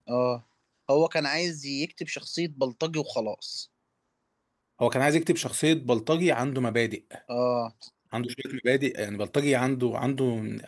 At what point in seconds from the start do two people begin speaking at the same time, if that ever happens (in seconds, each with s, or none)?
none